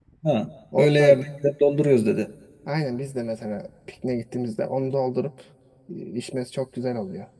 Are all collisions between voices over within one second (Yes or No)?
Yes